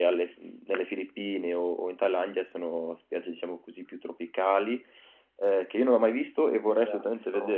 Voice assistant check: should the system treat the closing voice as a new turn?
No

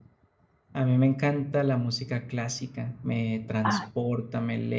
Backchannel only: Yes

